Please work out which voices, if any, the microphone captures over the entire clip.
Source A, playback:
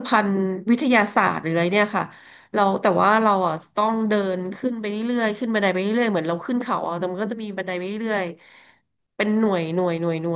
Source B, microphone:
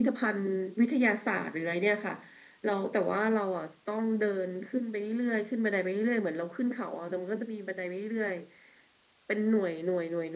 echo only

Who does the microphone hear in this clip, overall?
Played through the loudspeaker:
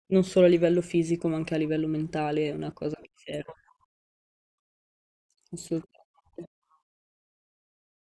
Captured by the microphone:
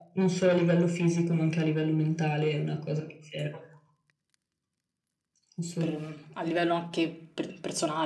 both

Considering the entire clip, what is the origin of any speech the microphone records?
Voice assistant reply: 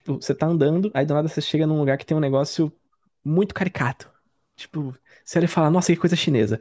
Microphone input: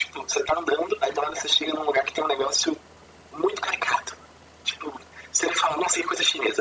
echo only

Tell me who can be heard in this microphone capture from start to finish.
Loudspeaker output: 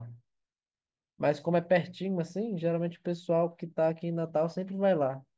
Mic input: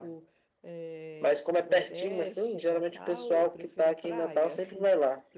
both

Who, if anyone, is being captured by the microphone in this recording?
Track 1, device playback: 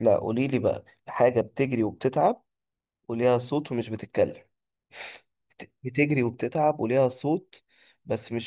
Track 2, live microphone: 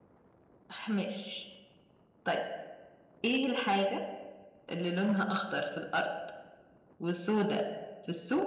user only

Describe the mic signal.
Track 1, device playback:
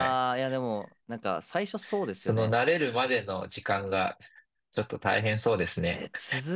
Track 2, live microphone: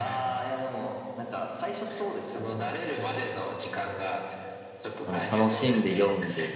both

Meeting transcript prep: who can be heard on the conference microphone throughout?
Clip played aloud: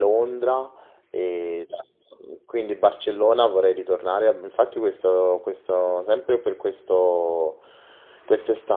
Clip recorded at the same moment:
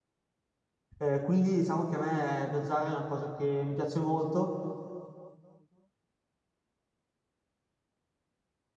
user only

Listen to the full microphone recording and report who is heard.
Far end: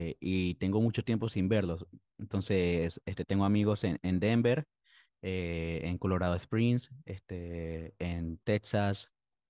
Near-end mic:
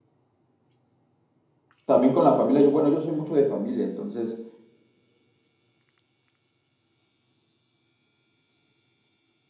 user only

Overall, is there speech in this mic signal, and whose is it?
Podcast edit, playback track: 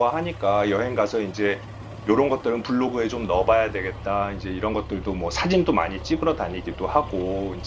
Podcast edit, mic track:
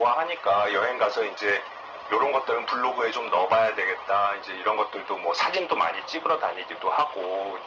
echo only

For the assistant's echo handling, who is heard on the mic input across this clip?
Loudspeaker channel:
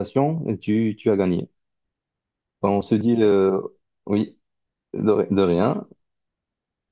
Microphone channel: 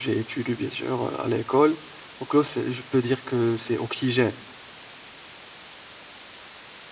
user only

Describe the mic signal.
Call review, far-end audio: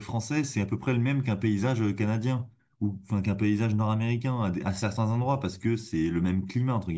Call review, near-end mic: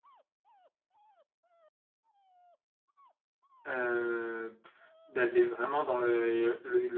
user only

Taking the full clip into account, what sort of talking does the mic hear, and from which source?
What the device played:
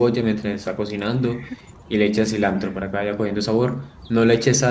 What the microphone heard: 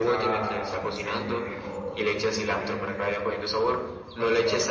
both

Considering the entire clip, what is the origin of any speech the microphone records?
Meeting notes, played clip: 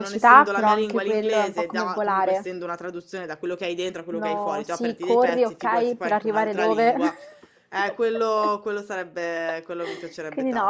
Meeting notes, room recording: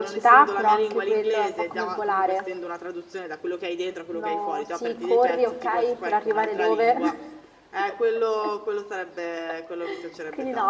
echo only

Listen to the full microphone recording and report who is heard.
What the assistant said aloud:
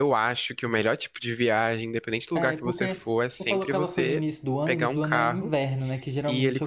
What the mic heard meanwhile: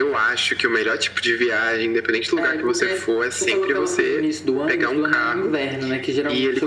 echo only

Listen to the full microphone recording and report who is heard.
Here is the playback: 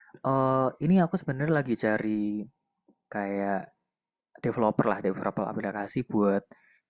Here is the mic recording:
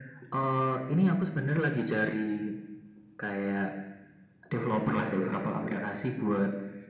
echo only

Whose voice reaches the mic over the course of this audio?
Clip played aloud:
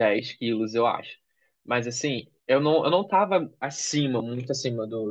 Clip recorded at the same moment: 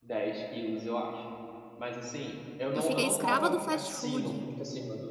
both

